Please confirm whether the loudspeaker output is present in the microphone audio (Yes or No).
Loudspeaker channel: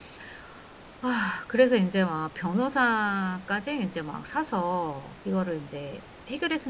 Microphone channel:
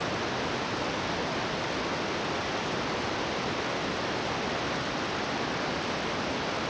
No